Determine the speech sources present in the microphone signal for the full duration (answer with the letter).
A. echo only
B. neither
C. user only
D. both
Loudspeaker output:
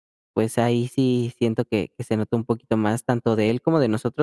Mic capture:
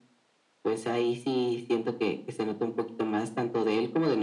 A